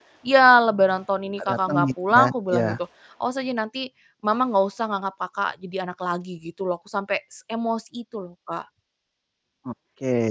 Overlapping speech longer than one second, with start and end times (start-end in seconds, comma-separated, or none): 1.4-2.7